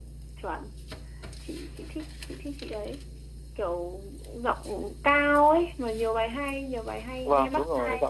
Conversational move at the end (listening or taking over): taking over